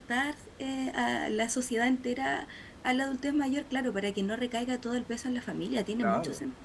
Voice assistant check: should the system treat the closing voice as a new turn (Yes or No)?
Yes